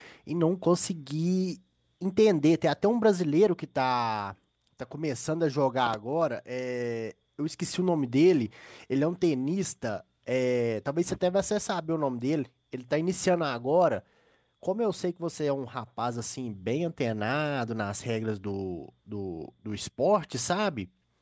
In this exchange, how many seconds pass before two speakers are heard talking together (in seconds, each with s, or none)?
none